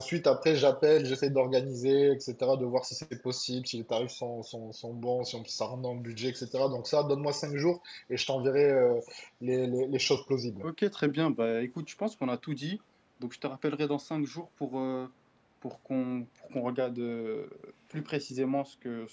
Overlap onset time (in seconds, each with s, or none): none